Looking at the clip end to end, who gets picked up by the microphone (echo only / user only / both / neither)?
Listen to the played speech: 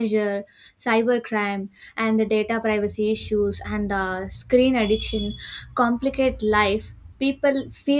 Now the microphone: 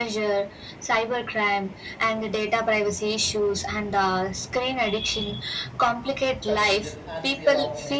both